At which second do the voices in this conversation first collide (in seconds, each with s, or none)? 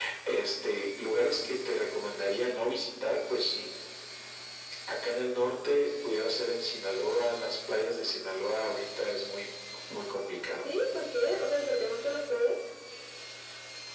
none